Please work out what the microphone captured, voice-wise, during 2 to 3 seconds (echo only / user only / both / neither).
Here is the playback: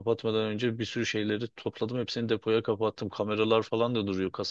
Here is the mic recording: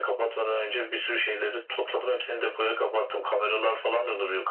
echo only